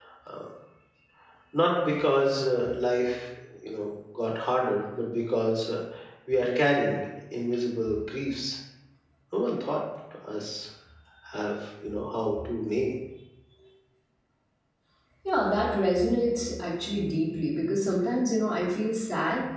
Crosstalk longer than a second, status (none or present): none